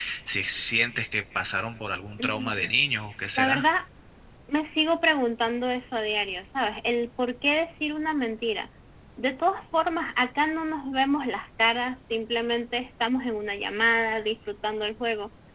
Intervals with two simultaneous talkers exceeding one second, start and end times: none

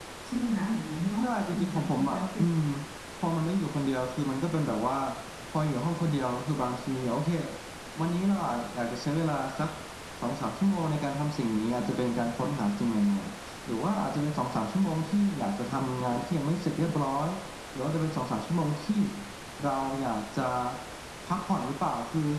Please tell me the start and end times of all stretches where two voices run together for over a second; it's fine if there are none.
1.2-2.5

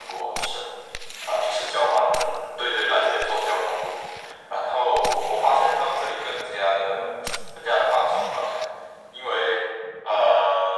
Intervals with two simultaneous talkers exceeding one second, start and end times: none

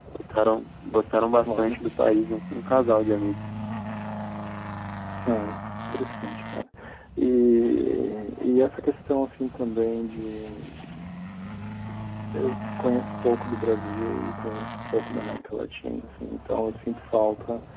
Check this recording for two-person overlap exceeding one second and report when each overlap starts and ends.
none

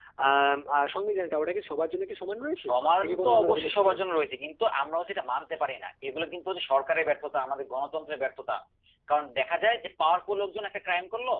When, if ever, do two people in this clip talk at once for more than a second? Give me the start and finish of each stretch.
2.6-4.0

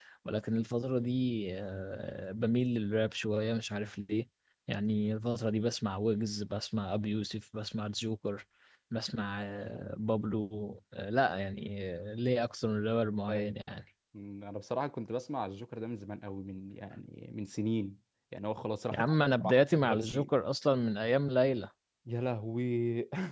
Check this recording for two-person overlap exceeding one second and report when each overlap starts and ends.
18.9-20.3

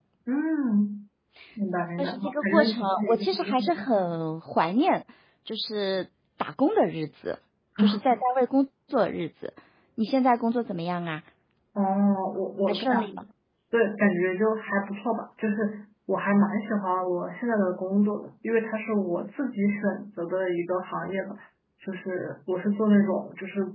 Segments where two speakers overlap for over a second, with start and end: 2.0-3.9

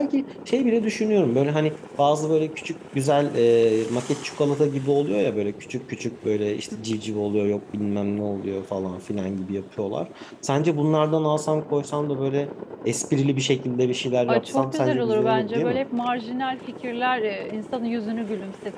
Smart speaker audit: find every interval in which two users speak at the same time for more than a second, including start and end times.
14.3-15.8

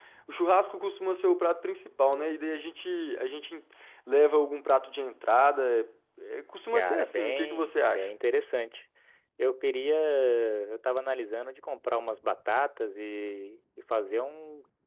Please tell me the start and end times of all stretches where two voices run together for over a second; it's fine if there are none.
6.7-8.1

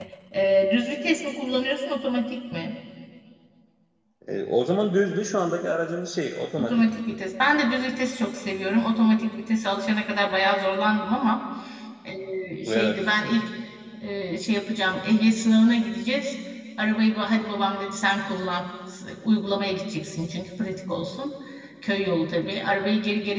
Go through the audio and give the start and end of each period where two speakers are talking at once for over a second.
none

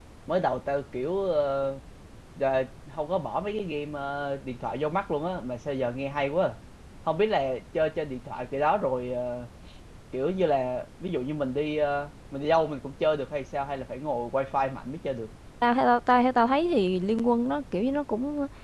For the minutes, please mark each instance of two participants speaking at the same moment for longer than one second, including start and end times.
none

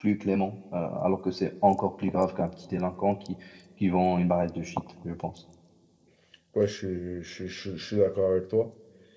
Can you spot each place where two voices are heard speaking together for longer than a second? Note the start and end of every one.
none

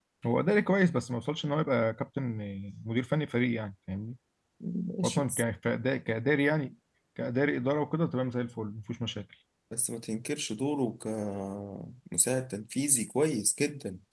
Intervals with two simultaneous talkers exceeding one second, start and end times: none

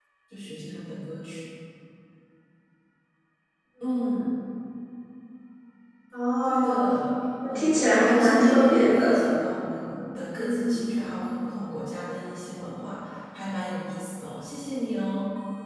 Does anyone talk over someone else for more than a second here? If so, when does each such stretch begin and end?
7.5-9.2

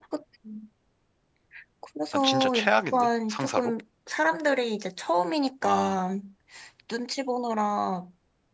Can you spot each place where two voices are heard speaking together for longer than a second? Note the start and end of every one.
2.1-3.7

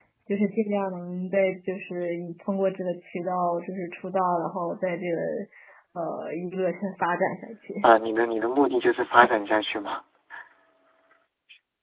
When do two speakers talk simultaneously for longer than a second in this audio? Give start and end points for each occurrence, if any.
none

